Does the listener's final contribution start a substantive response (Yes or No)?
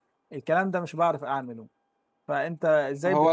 Yes